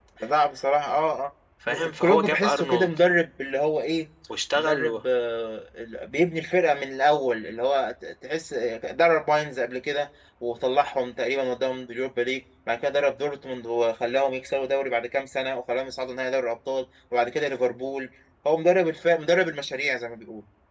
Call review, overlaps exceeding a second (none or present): present